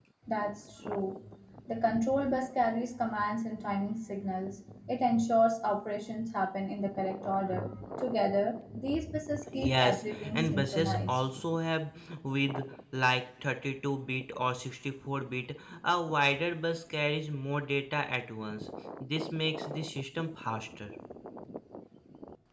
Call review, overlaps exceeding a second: present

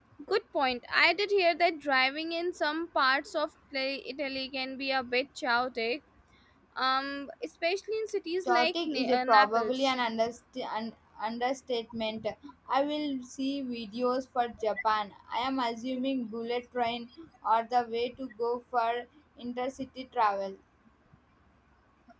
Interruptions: present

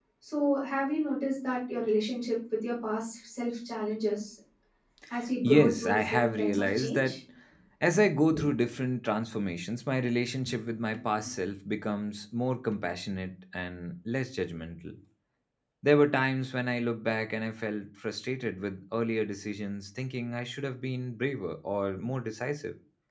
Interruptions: present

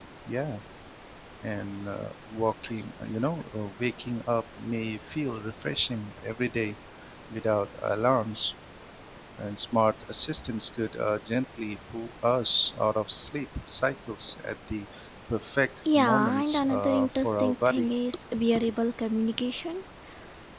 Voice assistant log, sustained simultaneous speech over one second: present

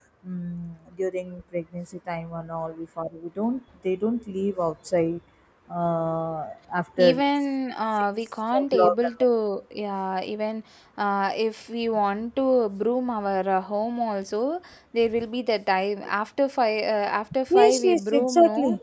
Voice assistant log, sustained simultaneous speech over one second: present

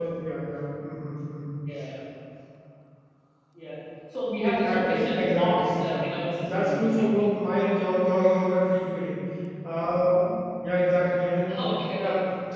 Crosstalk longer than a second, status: present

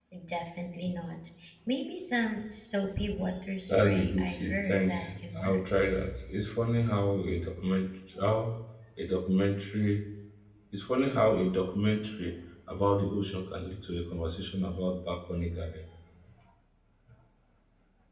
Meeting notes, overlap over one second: present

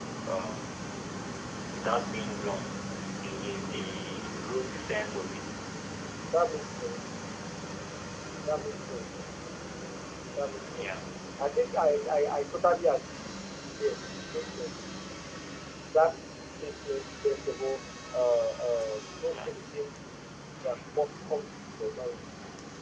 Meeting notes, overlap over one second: none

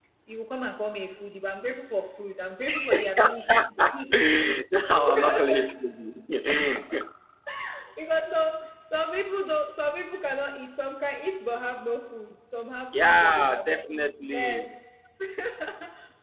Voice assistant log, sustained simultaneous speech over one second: present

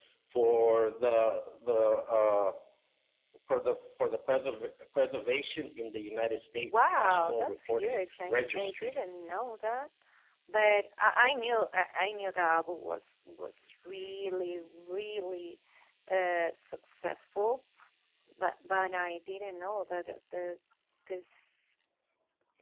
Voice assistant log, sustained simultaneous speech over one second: present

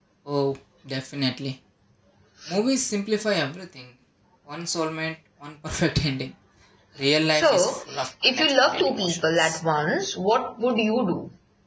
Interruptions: present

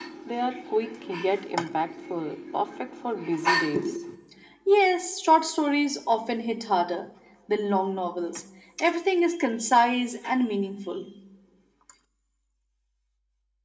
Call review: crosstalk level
none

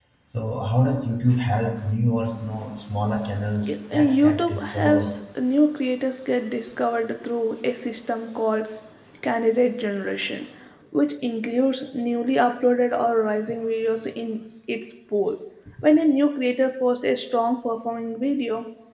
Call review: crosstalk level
present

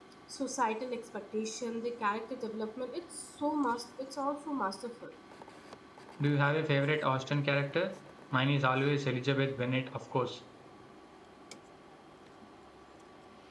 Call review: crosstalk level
none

